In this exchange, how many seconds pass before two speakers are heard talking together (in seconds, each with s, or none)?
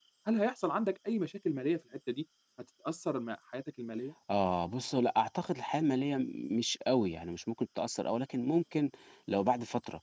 none